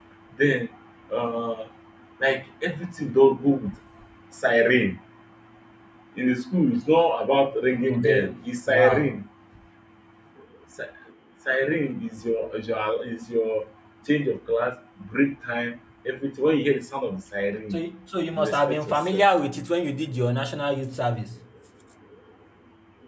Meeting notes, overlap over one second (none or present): present